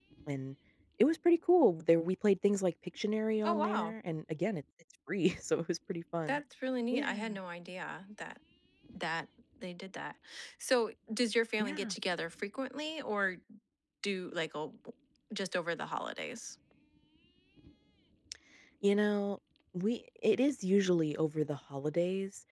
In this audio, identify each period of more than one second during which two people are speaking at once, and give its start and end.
none

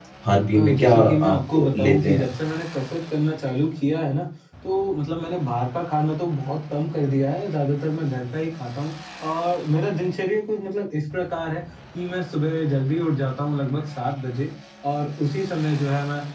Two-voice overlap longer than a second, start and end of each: 0.5-2.2

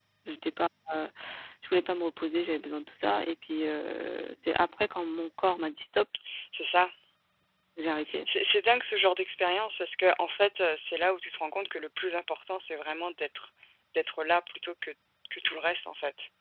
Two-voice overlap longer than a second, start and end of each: none

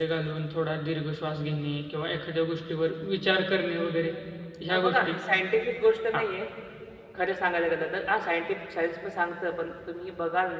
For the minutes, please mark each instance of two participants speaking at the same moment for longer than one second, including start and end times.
none

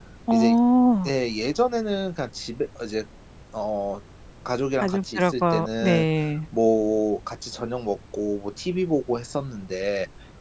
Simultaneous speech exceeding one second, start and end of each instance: 4.8-6.0

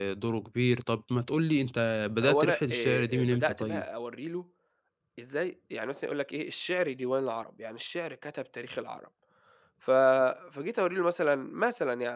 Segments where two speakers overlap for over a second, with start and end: 2.2-3.8

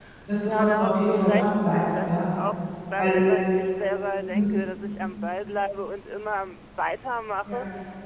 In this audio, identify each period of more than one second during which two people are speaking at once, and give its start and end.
0.6-2.3

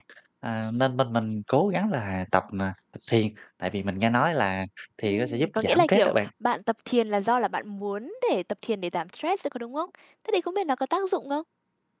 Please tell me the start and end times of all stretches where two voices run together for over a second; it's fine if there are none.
5.0-6.3

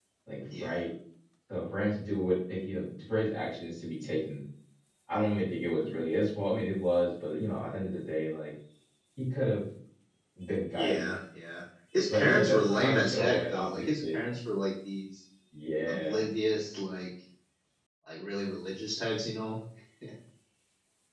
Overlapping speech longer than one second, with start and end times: 12.1-14.2

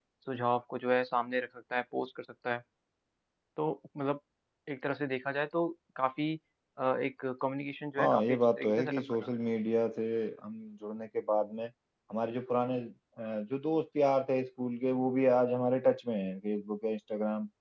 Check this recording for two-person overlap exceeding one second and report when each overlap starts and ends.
8.0-9.3

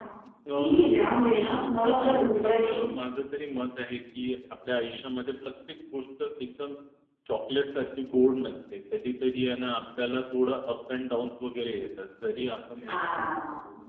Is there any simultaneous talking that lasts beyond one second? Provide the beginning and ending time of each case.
0.6-2.1

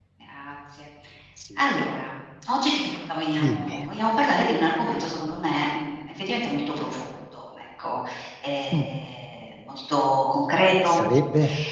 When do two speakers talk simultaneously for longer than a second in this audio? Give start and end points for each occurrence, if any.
none

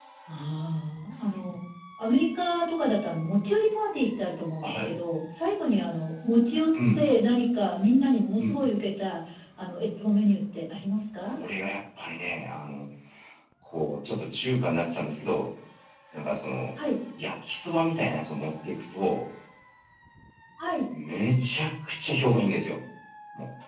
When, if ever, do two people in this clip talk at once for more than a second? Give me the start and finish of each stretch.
none

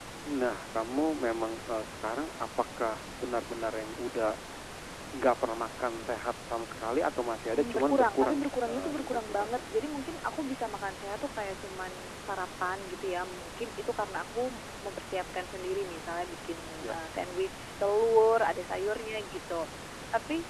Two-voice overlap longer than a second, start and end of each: 7.5-9.6

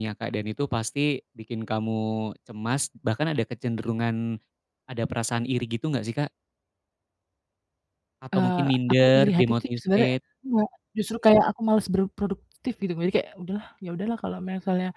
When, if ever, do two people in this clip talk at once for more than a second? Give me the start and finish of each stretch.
8.4-10.1

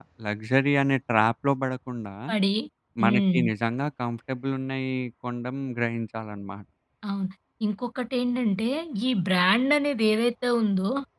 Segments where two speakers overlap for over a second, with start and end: none

